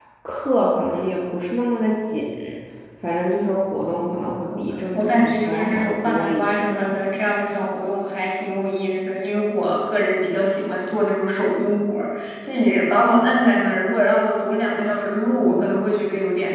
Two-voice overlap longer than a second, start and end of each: 4.9-6.7

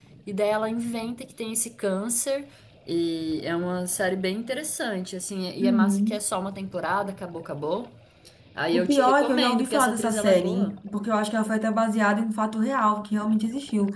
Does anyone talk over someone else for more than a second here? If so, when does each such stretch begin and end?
8.7-10.8

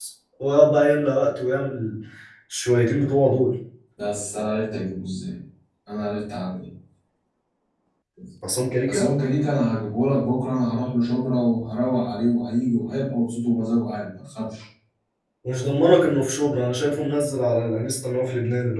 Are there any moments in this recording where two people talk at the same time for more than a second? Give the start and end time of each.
none

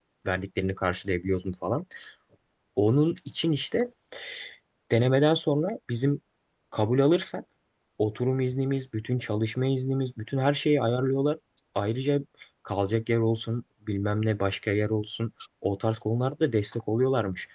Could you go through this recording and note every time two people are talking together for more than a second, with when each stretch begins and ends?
none

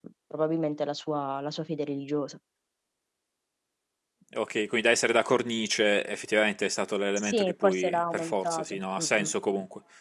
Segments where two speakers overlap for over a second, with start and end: 7.2-9.3

